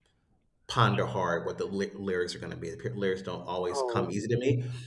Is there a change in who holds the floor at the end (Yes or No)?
No